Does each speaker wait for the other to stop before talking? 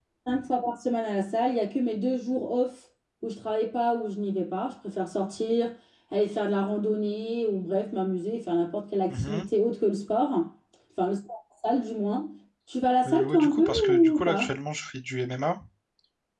No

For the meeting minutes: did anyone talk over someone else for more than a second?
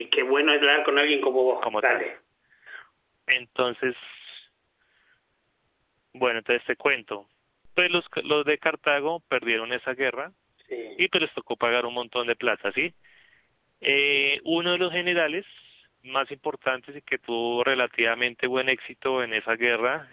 No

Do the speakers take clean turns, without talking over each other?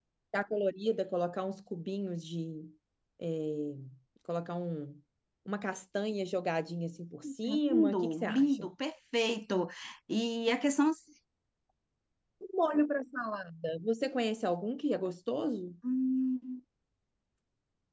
No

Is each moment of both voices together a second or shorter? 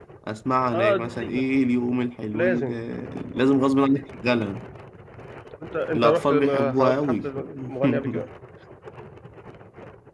No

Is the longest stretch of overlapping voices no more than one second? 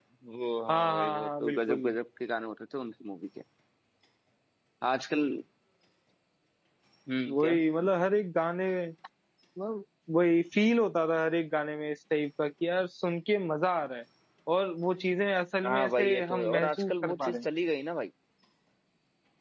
No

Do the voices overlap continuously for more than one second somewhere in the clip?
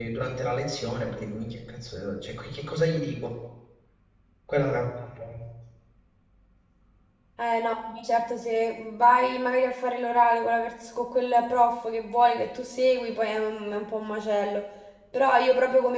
No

